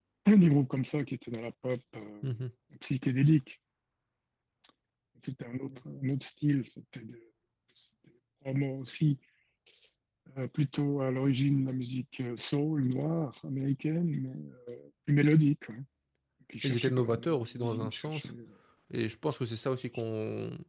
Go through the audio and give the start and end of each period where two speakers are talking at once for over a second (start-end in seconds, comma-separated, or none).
16.6-18.3